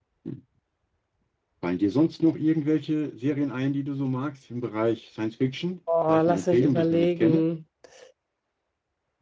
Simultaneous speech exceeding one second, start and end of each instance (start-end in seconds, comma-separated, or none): 6.1-7.5